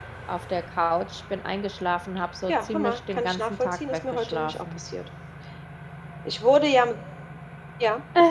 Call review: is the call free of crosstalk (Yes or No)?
No